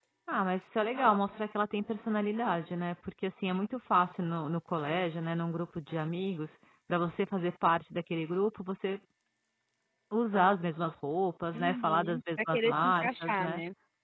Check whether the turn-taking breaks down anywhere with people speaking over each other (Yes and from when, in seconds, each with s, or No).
Yes, from 11.5 s